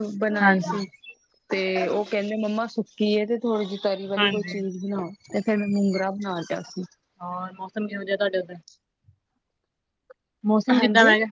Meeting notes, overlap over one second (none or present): none